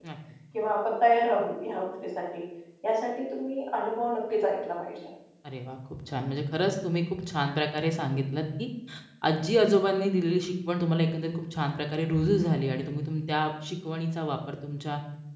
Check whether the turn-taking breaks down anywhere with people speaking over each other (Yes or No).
No